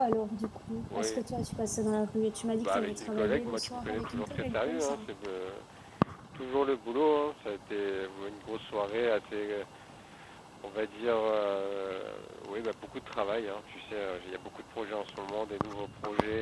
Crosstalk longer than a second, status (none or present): present